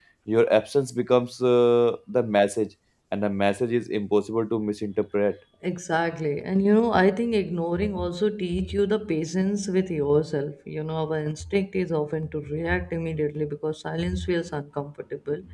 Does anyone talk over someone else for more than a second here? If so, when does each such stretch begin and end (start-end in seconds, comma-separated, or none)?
none